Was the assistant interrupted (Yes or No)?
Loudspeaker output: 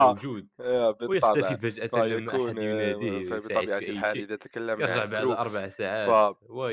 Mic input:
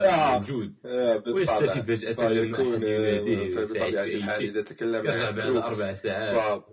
No